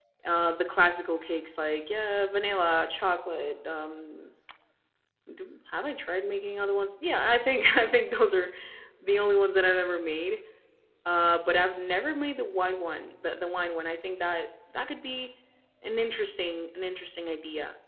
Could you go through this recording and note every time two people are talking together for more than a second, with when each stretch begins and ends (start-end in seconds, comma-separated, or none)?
none